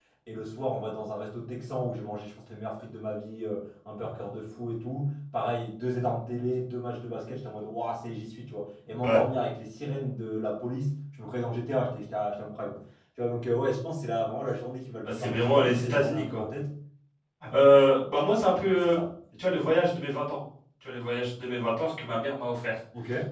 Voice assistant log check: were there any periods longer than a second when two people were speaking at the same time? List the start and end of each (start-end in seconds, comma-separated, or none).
15.0-16.4